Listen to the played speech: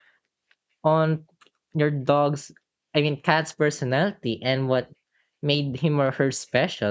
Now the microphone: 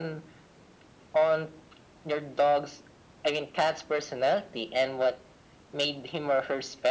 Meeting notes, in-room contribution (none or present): none